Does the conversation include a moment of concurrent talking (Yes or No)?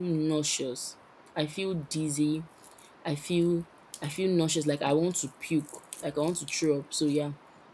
No